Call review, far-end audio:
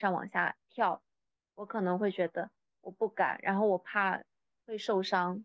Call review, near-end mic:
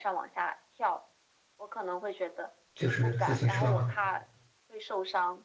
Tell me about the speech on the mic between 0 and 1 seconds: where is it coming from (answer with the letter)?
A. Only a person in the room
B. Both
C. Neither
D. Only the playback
D